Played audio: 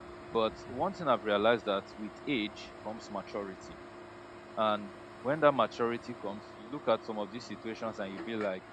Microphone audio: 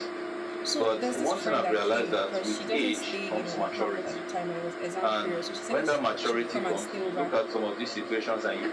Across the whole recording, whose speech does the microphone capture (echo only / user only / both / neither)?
both